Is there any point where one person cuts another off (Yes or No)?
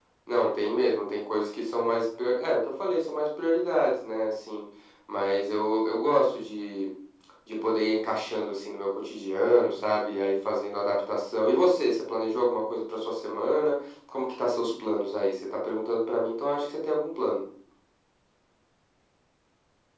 No